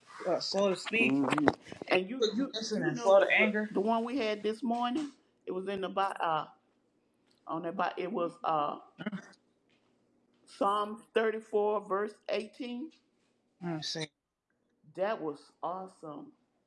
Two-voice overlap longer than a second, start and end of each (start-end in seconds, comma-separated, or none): 2.2-3.6